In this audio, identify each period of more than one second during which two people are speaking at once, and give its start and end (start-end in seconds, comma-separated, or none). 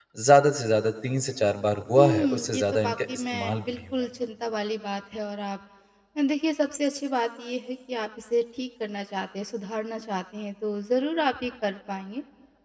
2.0-3.8